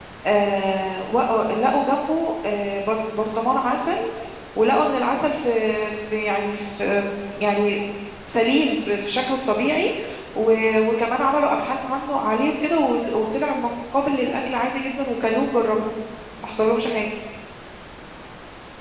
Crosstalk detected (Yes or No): No